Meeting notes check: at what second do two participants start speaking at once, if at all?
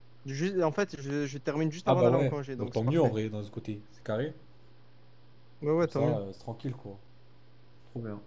1.9 s

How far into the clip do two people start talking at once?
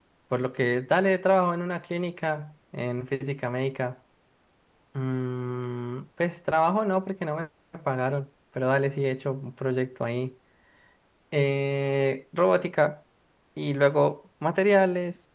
none

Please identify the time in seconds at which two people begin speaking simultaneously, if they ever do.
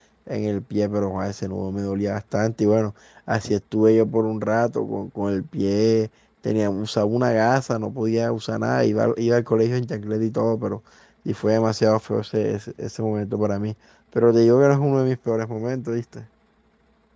none

